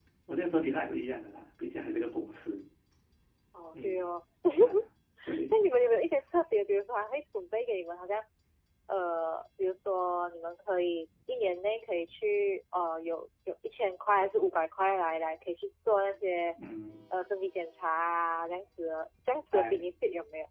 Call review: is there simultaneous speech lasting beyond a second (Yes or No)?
No